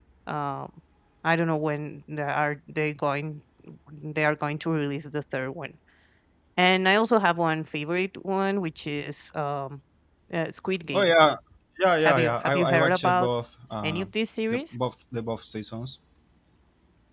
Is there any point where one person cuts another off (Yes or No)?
Yes